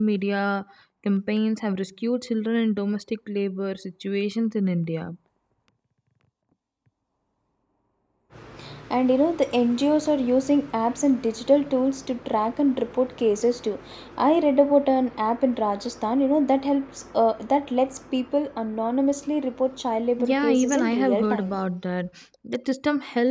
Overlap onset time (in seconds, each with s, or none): 20.2 s